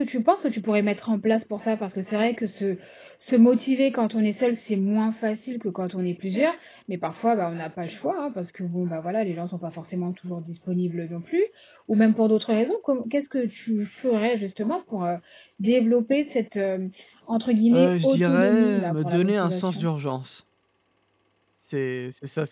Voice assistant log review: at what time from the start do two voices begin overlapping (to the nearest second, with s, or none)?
18 s